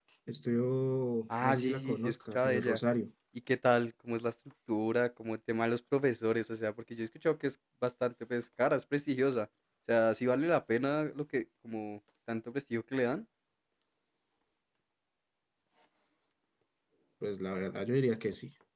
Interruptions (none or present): present